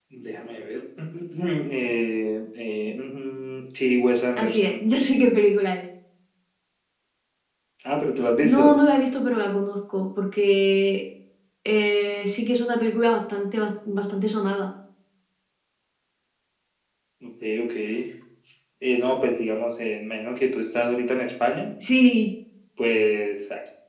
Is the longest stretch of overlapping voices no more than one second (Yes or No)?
Yes